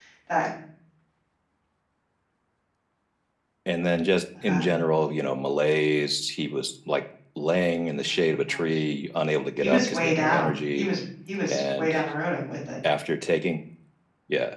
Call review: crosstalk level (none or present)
present